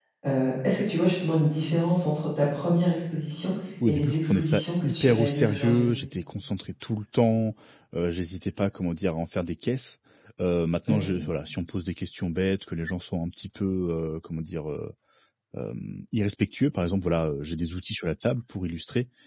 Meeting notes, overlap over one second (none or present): present